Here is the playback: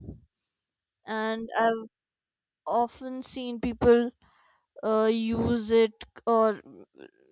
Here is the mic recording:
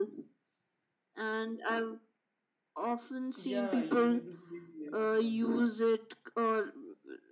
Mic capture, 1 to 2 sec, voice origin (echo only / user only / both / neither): echo only